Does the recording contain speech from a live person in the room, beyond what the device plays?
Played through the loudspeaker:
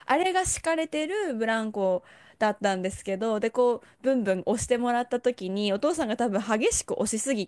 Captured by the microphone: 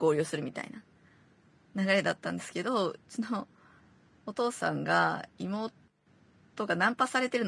Yes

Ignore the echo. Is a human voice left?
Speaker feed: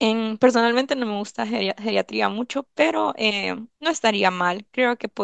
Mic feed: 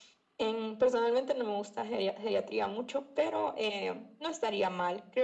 No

